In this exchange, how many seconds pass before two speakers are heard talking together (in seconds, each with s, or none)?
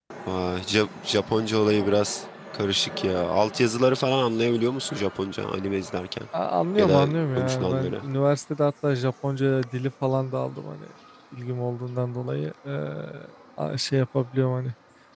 6.8 s